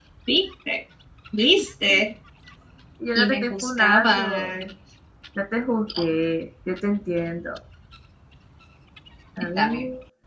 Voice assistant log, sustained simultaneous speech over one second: present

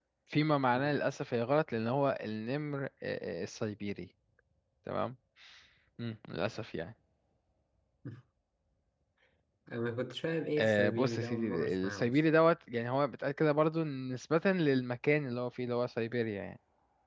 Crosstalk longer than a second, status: present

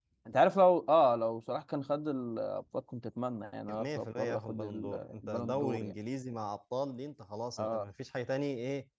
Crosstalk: present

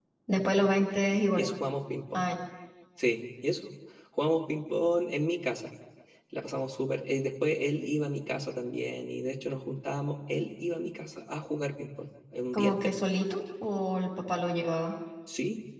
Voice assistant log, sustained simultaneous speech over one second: none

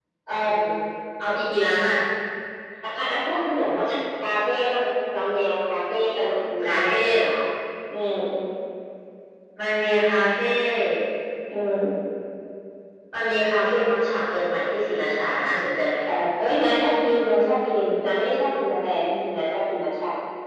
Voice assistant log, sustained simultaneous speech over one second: none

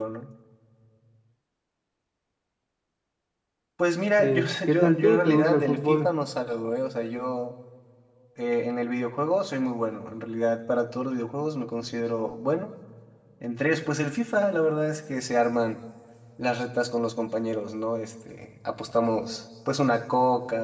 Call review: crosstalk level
present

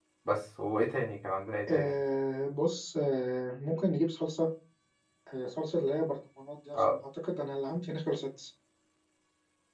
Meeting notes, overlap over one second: none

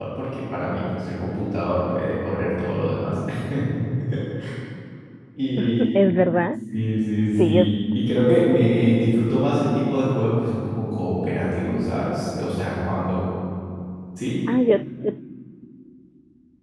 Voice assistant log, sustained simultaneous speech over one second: none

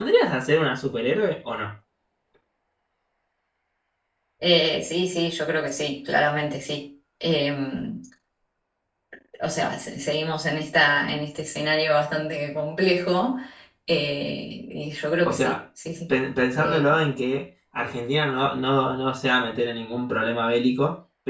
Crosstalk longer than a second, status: none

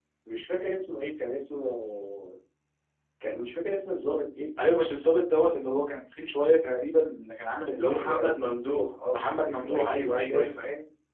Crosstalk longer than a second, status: present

